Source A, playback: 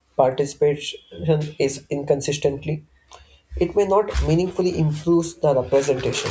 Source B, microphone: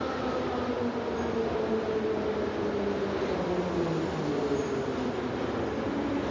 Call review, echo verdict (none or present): none